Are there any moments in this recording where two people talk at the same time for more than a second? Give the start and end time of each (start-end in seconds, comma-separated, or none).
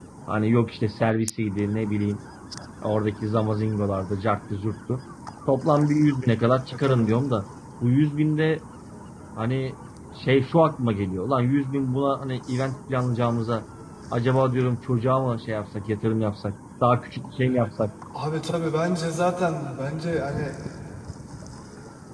none